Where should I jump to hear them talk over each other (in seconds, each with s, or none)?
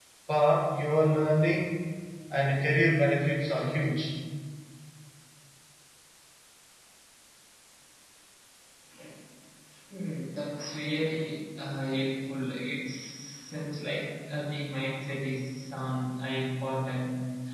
none